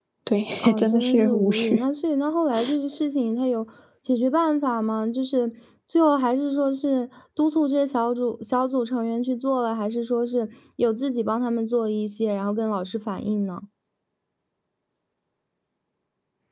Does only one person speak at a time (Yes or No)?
No